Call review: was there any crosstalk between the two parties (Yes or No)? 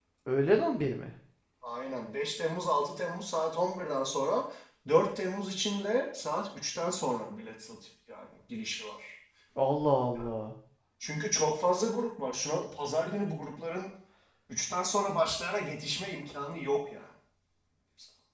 No